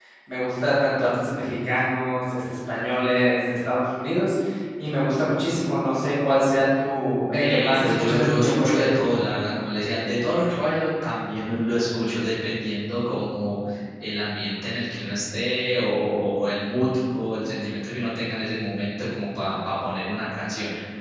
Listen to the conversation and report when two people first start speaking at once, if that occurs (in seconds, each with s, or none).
7.4 s